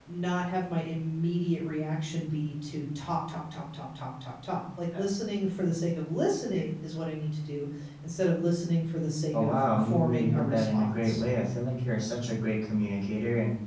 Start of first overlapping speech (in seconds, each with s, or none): 9.3 s